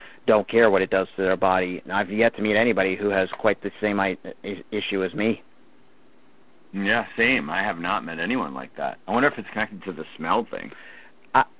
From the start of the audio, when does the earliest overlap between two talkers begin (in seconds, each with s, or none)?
none